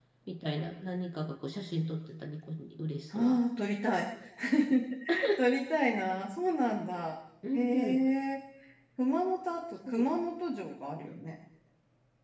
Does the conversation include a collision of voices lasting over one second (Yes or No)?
No